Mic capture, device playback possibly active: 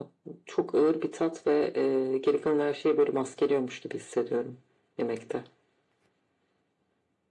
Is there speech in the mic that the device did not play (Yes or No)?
No